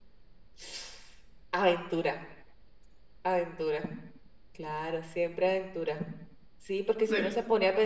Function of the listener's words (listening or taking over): listening